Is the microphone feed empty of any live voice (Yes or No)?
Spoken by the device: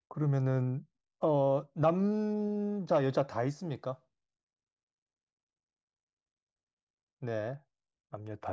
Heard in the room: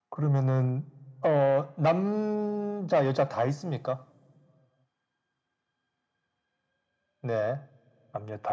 Yes